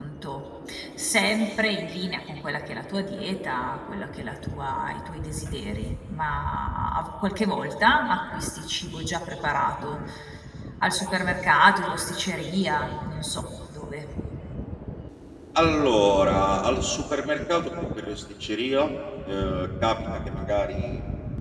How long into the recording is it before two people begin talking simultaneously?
none

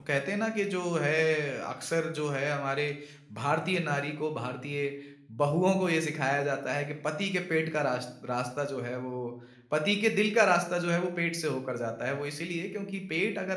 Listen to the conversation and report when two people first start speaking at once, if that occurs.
none

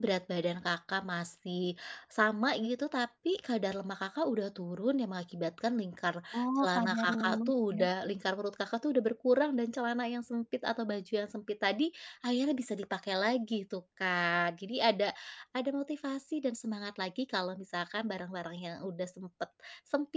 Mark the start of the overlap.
6.6 s

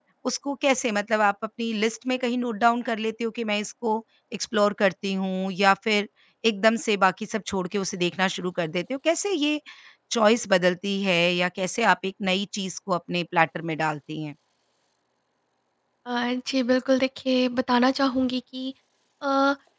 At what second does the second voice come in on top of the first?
none

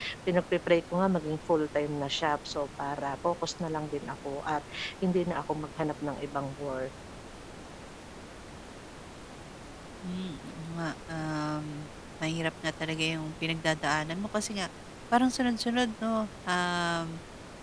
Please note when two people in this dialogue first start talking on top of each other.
none

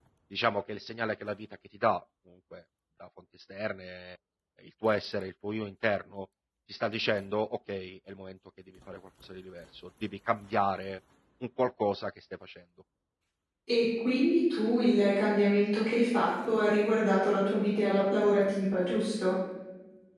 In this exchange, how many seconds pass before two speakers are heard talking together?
none

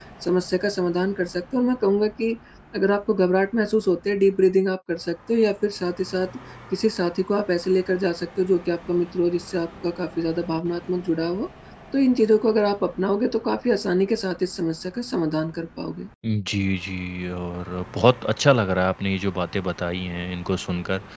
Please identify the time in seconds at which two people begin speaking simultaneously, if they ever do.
none

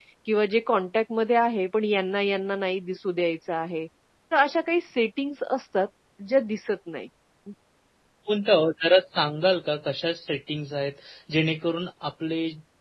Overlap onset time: none

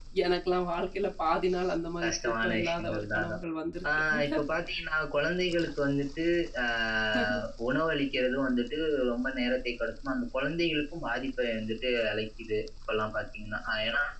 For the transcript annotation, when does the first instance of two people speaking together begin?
2.0 s

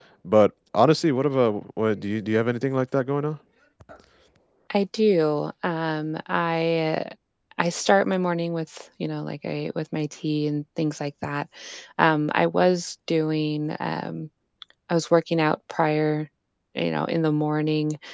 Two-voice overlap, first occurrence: none

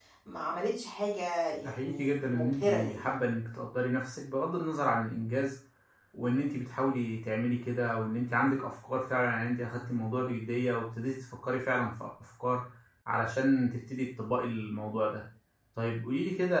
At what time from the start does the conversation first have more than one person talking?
1.6 s

